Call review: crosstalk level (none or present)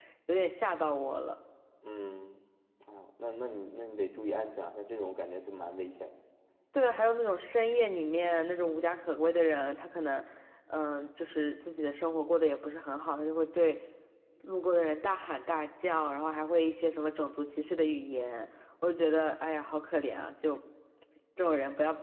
none